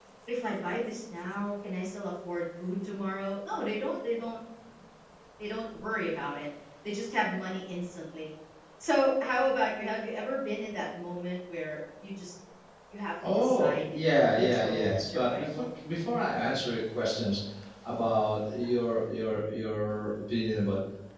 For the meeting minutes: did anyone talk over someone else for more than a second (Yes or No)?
Yes